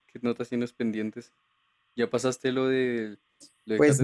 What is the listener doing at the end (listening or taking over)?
taking over